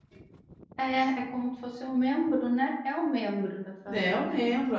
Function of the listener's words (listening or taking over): taking over